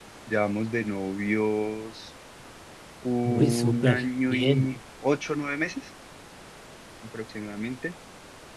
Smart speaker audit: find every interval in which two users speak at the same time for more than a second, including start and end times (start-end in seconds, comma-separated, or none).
3.2-4.8